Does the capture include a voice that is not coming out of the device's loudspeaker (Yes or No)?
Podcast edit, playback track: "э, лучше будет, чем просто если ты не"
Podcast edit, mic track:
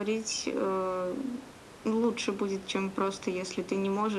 No